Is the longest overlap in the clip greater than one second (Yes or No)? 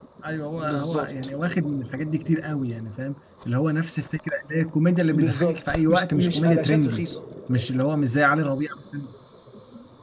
Yes